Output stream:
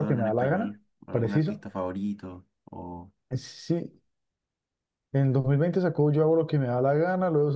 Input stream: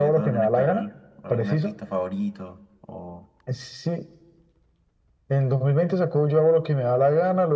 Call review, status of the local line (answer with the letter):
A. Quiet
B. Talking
A